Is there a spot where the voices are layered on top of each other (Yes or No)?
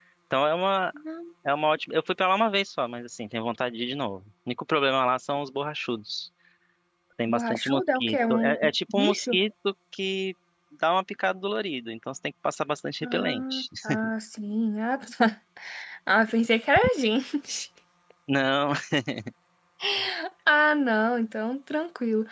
Yes